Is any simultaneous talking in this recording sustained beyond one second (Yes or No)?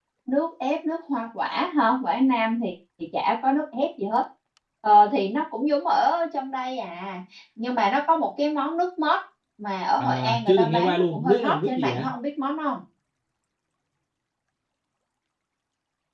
Yes